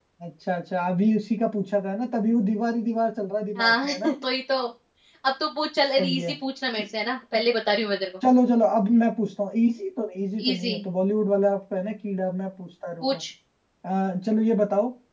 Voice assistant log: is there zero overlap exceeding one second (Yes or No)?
Yes